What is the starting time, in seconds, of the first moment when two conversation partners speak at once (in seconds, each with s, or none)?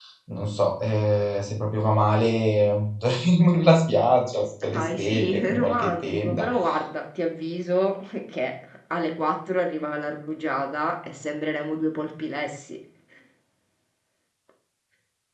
4.7 s